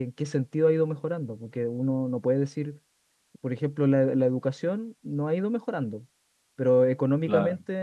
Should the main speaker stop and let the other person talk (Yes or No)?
No